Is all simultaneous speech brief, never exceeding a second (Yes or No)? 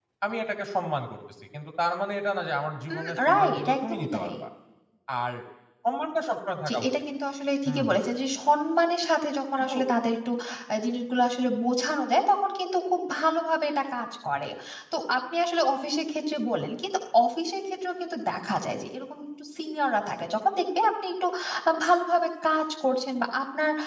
No